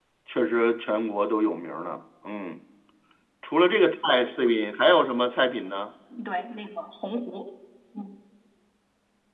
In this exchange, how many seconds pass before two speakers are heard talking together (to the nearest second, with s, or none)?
none